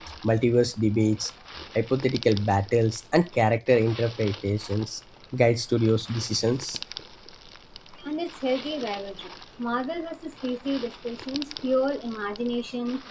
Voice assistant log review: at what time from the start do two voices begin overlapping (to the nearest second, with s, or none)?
none